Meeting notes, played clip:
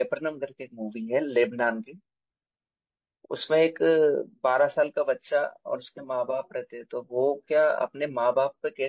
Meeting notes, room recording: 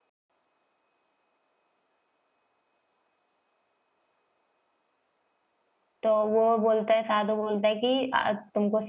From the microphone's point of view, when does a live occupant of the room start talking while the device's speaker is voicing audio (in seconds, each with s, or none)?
6.0 s